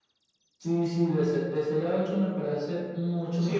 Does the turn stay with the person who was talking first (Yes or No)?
No